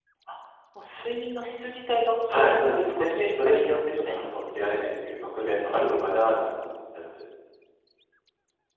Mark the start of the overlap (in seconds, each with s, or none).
2.3 s